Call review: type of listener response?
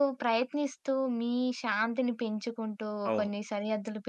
listening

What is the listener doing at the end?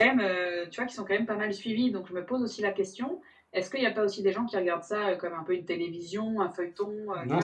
taking over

